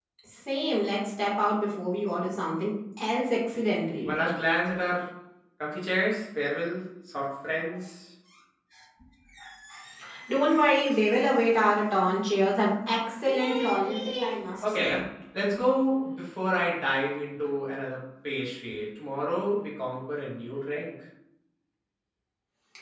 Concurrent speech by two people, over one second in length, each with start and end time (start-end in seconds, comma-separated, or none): none